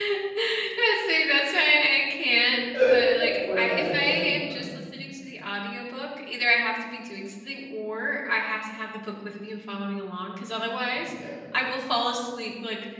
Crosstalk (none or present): present